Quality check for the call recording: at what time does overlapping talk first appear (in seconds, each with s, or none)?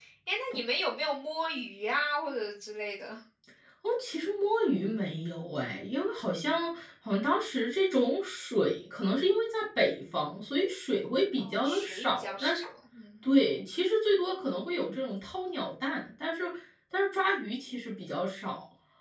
11.4 s